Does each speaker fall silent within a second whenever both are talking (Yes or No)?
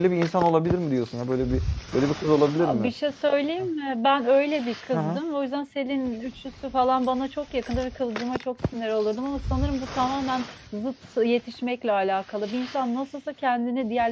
Yes